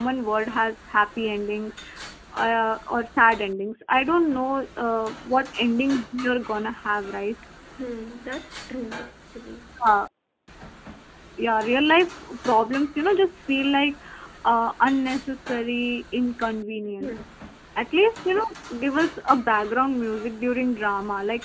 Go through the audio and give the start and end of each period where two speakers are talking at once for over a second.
none

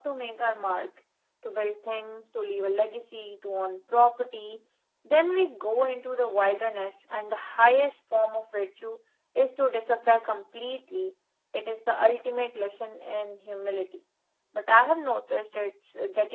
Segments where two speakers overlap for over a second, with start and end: none

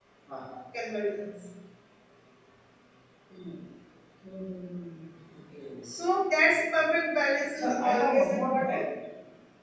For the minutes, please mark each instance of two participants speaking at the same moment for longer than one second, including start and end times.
7.5-8.9

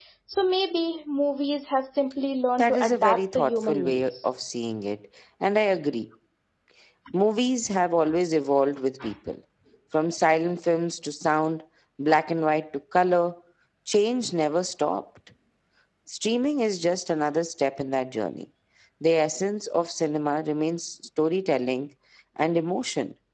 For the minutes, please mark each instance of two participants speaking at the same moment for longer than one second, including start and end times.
2.6-4.3

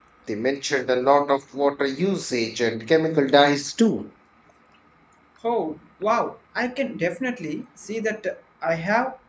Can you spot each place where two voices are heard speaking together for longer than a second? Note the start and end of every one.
none

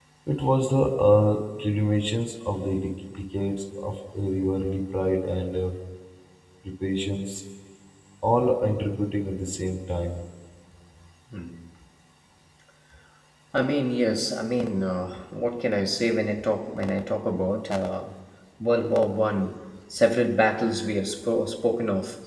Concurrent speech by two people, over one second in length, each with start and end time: none

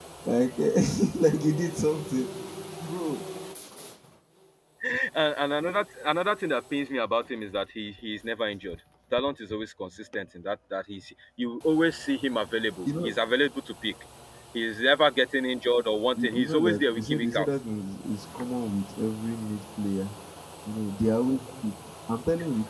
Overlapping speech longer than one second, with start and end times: 16.2-17.5

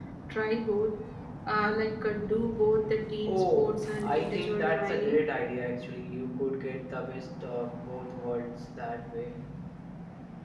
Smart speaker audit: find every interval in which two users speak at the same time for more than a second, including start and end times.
3.3-5.2

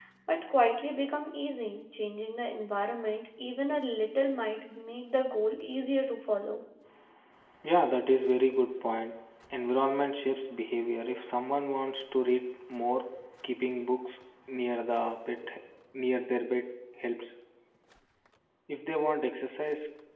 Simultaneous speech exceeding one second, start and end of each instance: none

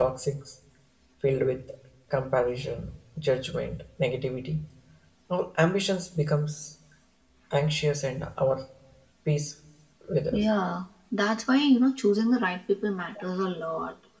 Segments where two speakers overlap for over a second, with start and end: none

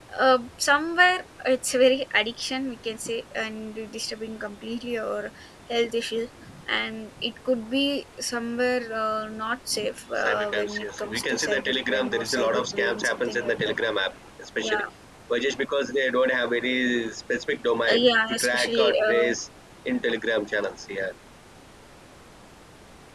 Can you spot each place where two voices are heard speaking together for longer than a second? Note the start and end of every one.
10.2-13.8, 17.9-19.3

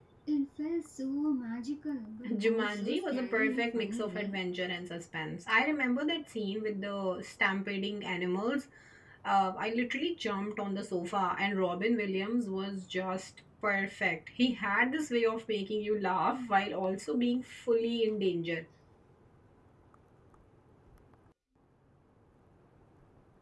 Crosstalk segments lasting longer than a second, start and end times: 2.2-4.4

